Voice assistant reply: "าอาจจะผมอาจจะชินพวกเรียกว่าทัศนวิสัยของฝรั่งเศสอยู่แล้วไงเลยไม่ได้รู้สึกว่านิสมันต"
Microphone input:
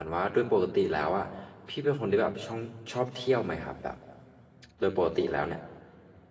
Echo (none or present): none